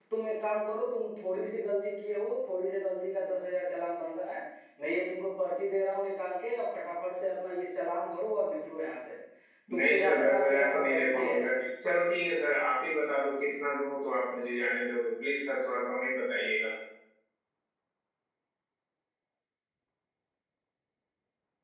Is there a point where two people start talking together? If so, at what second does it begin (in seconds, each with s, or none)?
9.8 s